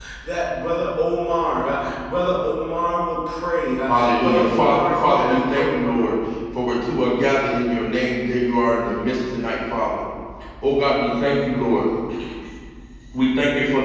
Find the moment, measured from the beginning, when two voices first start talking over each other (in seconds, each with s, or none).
3.9 s